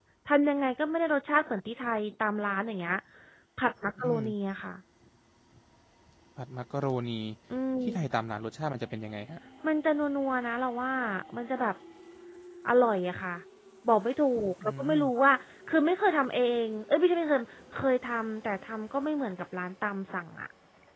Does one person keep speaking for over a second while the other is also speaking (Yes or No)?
No